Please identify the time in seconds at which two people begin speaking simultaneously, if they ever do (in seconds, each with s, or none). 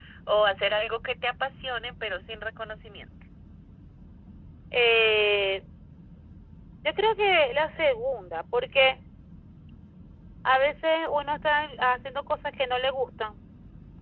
none